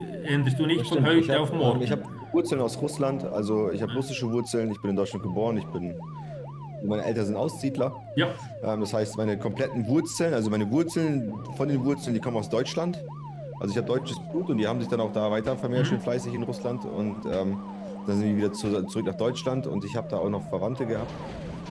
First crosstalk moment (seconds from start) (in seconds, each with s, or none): 0.8 s